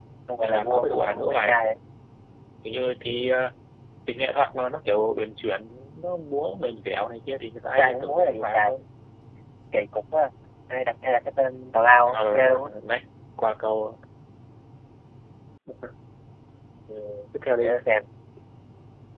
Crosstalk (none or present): present